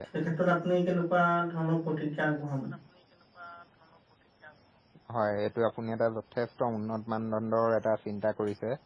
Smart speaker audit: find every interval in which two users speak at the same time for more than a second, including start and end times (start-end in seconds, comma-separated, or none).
none